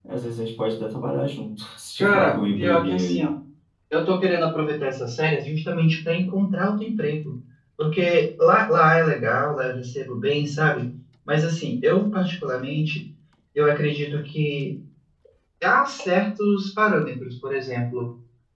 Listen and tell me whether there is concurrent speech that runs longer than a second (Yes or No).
Yes